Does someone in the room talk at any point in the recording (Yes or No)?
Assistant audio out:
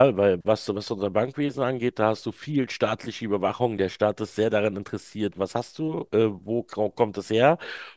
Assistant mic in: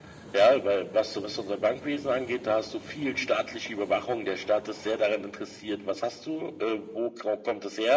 No